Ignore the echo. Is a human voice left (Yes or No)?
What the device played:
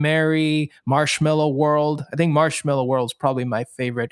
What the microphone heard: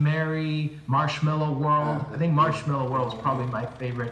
Yes